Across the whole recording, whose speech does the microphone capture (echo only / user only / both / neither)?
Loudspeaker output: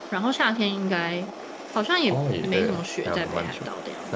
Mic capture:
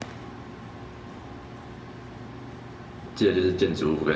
user only